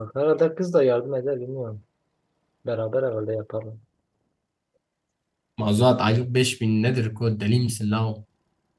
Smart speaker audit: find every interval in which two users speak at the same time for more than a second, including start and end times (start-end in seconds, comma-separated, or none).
none